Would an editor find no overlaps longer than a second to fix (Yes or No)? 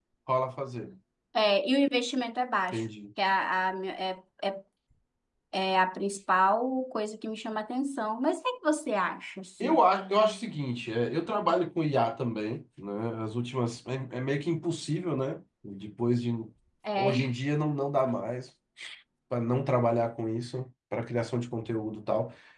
Yes